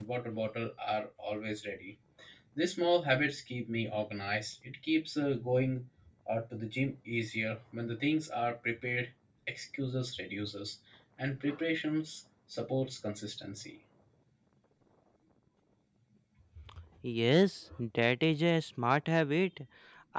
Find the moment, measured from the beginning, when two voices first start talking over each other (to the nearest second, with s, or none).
none